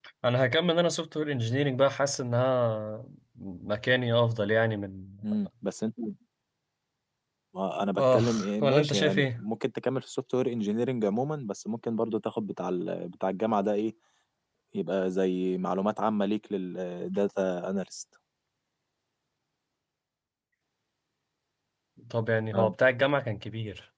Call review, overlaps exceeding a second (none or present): present